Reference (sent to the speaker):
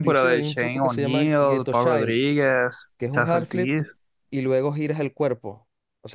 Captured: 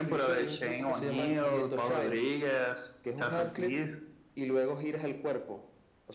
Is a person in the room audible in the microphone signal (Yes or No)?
Yes